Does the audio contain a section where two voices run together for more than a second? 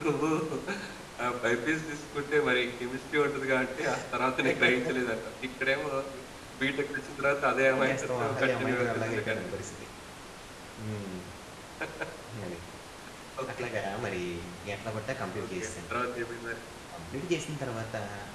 Yes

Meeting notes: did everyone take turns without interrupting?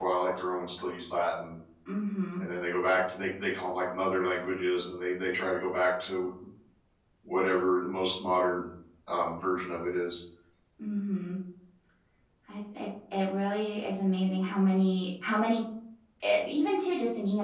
Yes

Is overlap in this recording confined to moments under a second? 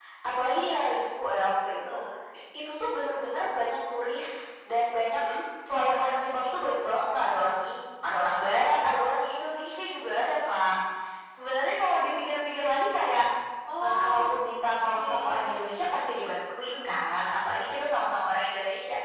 Yes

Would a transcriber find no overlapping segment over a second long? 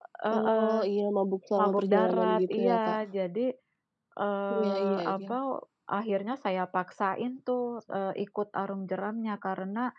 No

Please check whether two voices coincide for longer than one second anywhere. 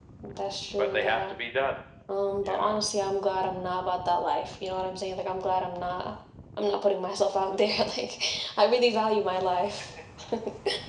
No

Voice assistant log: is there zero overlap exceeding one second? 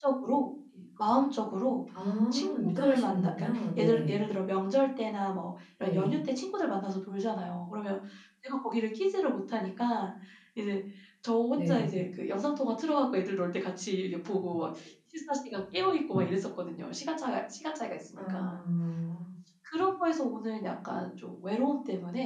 No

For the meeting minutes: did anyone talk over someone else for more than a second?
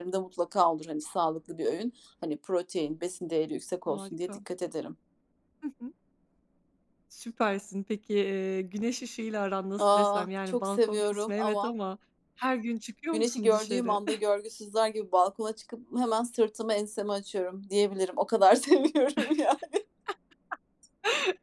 Yes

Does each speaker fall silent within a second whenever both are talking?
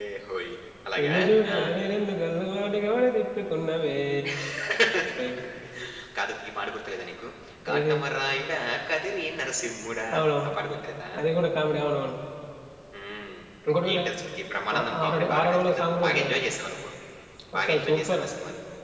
No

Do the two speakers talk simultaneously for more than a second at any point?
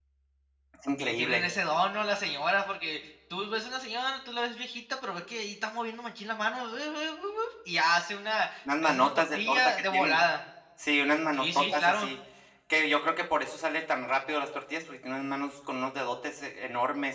Yes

